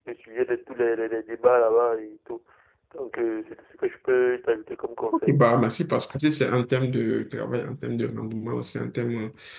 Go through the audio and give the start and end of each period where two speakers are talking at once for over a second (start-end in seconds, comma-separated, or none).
none